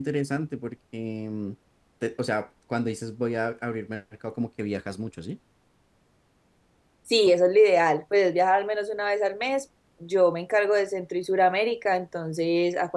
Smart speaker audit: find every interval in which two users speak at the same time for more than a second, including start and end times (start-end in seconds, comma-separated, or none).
none